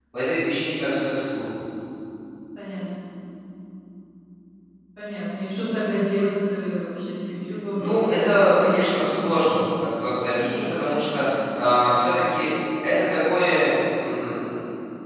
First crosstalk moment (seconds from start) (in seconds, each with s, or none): 7.8 s